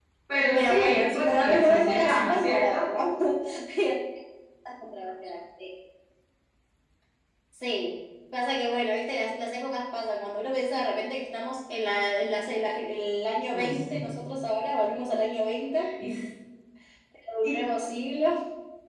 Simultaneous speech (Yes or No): Yes